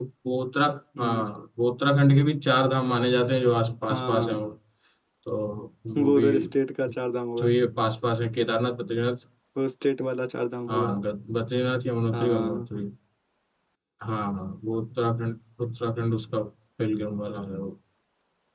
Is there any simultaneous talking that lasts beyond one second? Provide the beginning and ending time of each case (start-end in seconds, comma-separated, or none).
none